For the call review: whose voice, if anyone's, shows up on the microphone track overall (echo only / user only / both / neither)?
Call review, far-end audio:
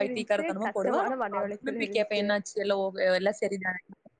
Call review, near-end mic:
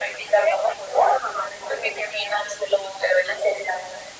echo only